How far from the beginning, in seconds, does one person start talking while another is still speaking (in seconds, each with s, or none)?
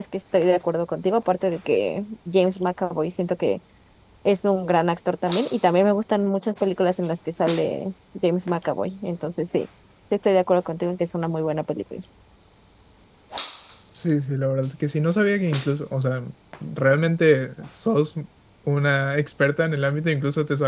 none